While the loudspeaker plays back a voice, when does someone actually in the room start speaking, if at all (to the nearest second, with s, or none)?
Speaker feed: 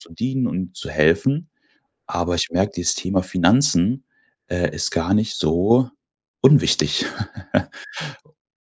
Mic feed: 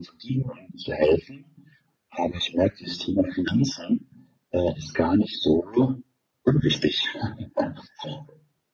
none